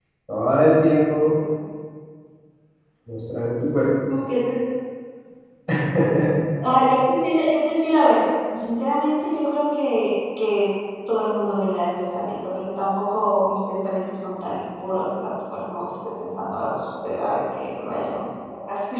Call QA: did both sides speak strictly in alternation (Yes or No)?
Yes